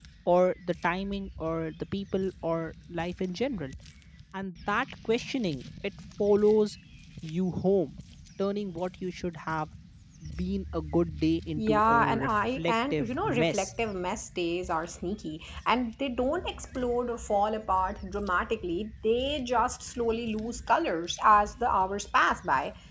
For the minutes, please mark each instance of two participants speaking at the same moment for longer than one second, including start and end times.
11.6-13.7

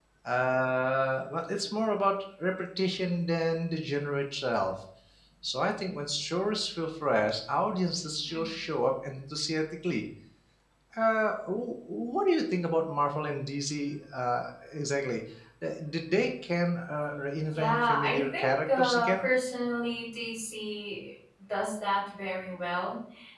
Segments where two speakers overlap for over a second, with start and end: 17.5-19.3

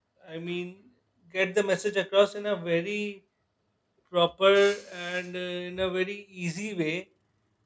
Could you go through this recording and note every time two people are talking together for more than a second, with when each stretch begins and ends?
none

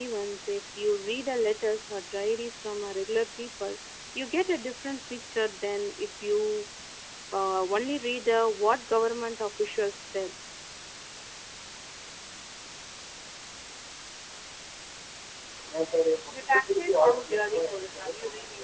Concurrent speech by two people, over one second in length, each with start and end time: none

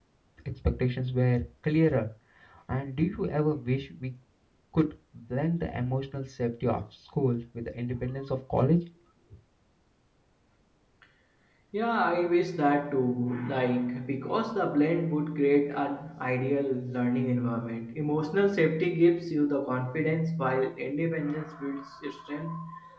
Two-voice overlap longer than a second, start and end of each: none

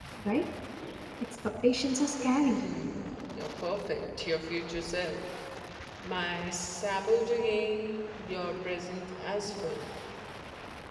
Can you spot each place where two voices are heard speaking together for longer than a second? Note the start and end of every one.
none

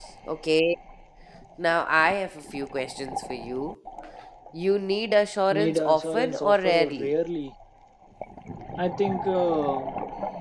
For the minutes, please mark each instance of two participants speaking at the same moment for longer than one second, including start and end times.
5.5-7.1

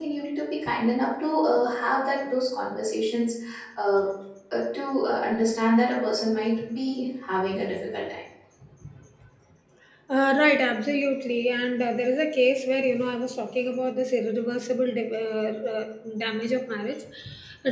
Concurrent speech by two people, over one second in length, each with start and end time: none

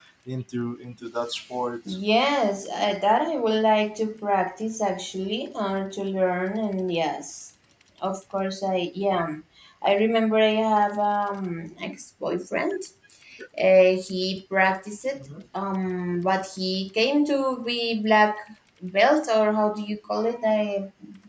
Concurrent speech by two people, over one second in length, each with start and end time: none

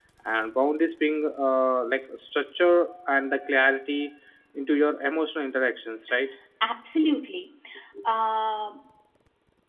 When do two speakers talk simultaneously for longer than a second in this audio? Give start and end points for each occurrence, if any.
none

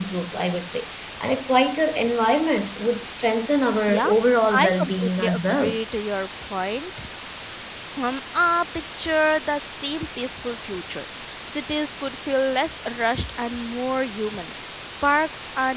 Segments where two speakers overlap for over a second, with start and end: 4.5-5.8

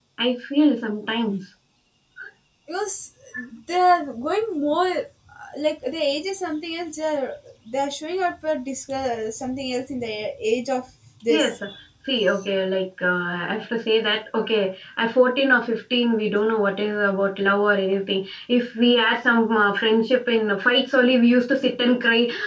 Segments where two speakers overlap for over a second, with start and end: none

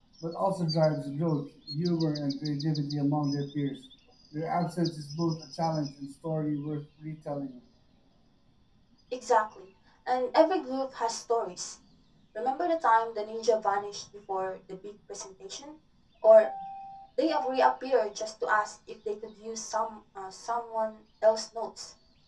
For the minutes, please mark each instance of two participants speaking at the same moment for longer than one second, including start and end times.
none

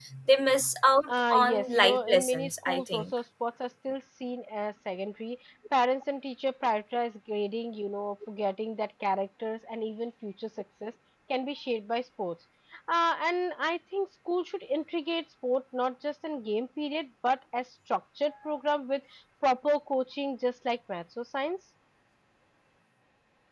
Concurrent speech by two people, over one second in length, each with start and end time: 1.1-3.0

